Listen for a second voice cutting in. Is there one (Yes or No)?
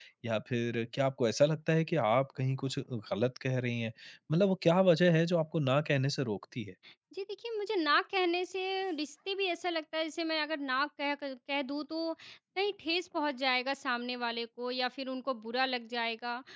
No